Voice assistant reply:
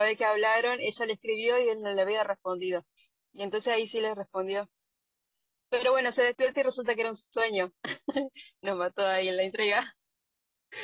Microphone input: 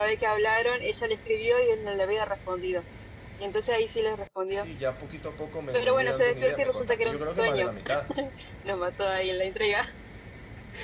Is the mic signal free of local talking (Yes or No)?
No